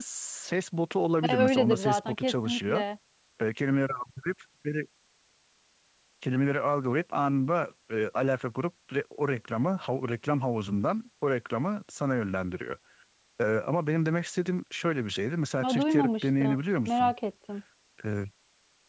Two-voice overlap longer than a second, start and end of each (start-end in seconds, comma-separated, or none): 1.3-2.8, 15.6-17.1